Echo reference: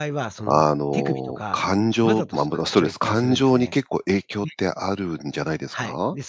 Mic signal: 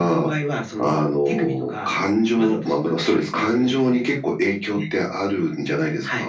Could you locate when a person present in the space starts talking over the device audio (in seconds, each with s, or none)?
none